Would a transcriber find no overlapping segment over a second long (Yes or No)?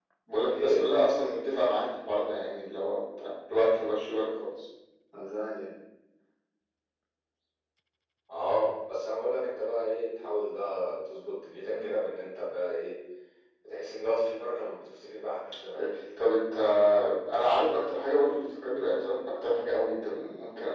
Yes